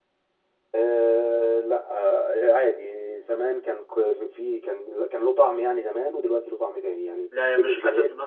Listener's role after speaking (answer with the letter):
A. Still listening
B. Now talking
B